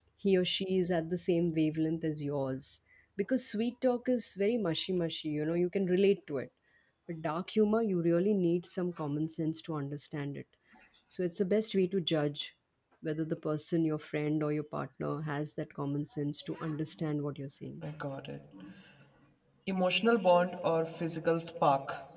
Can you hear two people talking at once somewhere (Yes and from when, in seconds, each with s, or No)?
No